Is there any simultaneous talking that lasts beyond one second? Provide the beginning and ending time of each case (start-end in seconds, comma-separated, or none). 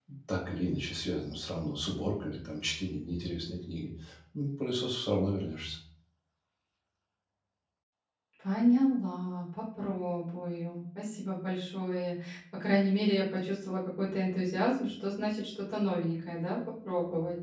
none